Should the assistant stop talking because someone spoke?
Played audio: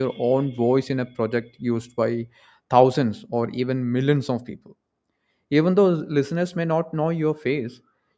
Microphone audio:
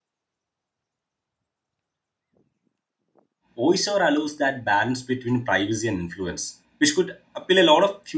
Yes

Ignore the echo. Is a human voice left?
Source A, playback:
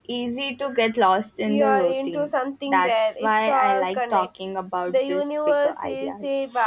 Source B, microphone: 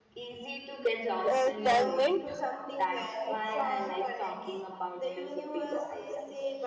Yes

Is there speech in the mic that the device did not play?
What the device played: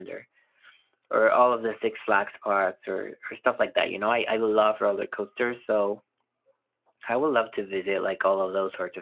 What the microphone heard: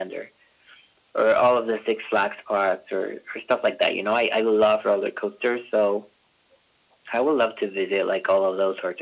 No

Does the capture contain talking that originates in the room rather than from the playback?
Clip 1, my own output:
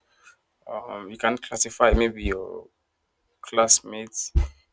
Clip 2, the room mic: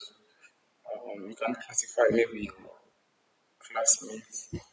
No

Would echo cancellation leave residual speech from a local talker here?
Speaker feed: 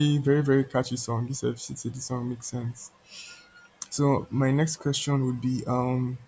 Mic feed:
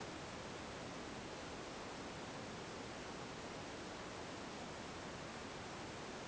No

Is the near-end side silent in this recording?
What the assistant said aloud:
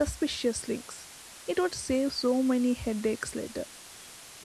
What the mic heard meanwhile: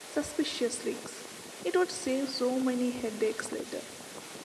Yes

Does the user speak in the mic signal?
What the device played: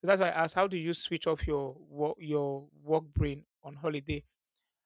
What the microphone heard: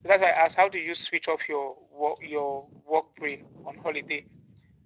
No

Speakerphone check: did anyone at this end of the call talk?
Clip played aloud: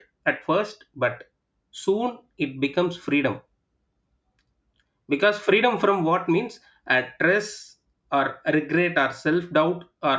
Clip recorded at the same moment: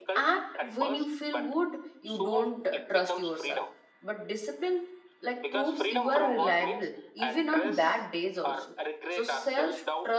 Yes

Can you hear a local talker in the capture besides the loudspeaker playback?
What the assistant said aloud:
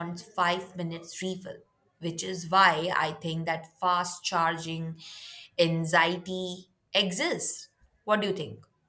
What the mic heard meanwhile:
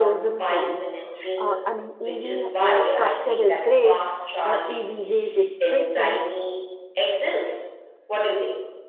Yes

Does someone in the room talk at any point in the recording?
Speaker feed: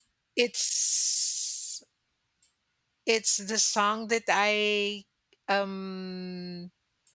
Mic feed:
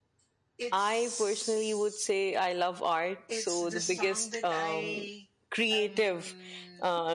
Yes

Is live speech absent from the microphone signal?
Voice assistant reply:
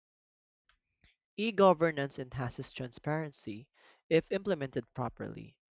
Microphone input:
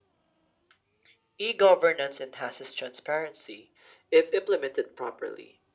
Yes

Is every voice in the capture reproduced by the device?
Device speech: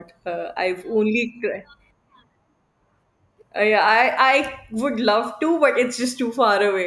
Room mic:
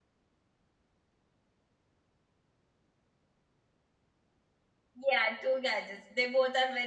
No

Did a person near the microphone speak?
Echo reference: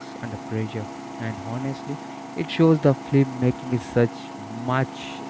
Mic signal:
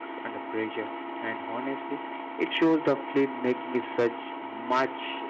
No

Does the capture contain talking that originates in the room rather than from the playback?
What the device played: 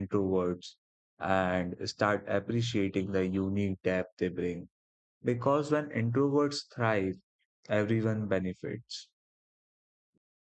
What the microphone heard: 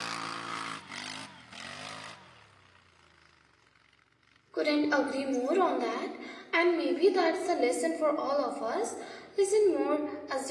Yes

